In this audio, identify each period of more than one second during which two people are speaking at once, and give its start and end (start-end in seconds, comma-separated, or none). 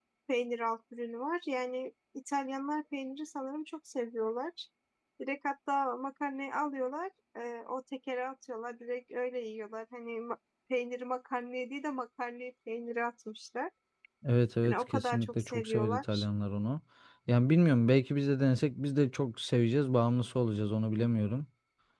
14.6-16.2